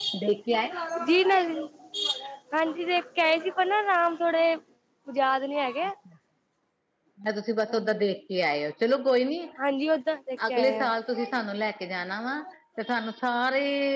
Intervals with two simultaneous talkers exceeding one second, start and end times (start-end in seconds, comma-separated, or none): none